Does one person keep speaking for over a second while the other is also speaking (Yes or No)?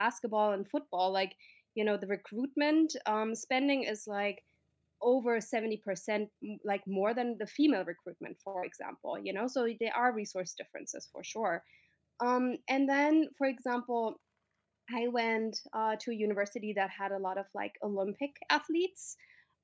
No